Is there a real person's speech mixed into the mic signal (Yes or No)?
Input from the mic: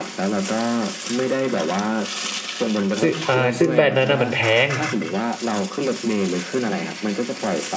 Yes